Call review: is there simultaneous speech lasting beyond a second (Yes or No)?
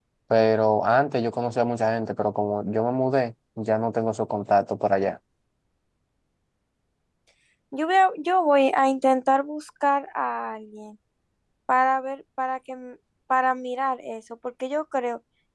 No